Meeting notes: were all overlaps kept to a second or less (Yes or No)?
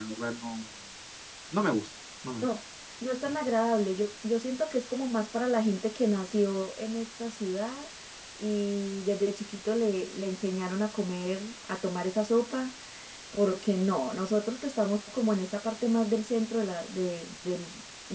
Yes